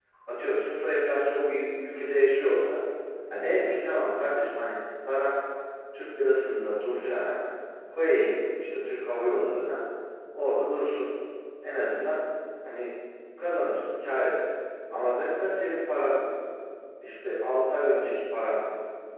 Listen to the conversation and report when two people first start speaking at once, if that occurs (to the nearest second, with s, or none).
none